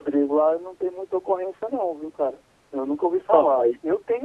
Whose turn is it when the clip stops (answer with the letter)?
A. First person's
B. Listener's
A